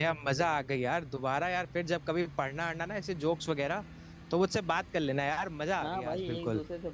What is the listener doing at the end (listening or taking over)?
taking over